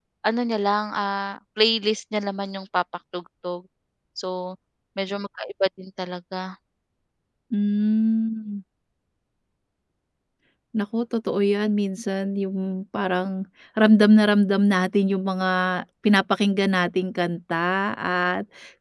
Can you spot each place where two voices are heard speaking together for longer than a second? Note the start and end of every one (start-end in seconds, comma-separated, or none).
none